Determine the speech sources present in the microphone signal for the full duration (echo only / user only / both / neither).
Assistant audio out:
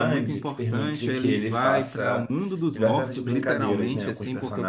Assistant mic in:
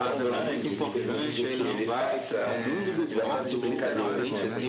both